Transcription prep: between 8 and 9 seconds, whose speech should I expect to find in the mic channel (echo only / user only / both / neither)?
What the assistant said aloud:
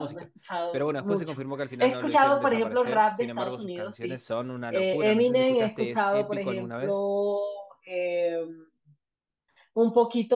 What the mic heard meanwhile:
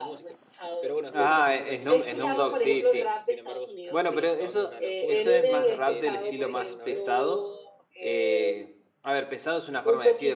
both